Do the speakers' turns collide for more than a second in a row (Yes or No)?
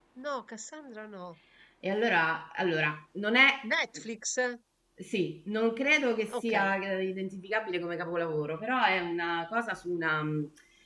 No